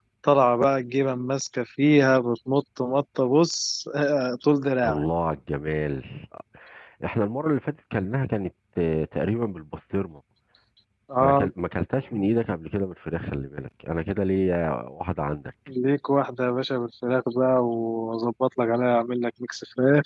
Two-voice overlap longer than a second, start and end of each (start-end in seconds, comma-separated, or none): none